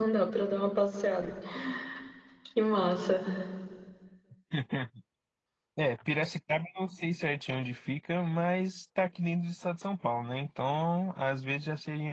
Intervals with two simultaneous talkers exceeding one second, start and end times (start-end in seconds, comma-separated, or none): none